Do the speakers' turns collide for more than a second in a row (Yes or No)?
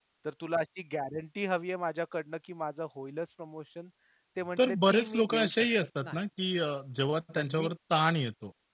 Yes